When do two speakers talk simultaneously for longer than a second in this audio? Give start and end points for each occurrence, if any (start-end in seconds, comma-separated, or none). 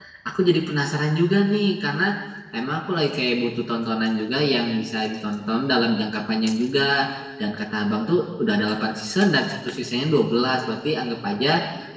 none